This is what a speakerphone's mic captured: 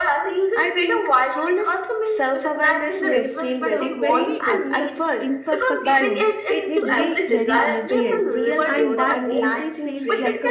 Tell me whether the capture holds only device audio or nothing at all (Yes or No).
No